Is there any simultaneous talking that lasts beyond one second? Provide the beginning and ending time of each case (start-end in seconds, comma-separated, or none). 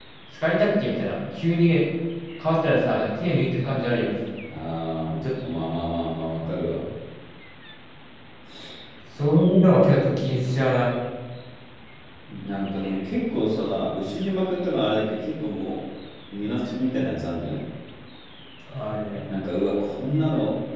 none